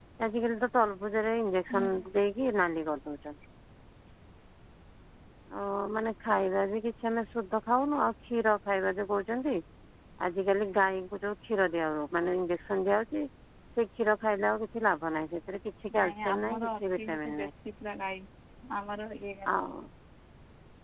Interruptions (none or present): present